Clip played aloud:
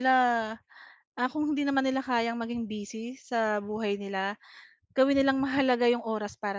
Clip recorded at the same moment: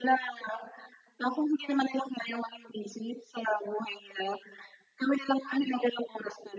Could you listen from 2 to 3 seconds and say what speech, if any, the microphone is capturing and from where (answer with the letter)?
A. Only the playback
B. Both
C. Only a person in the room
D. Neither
A